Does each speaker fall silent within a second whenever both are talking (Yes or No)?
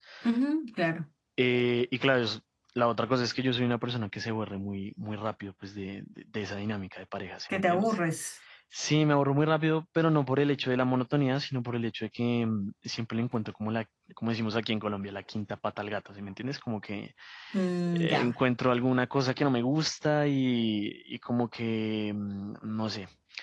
Yes